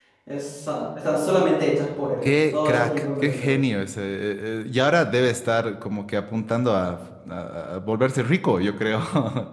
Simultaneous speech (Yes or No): Yes